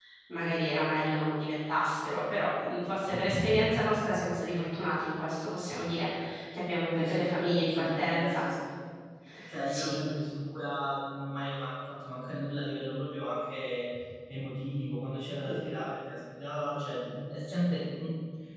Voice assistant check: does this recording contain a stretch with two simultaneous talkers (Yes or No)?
Yes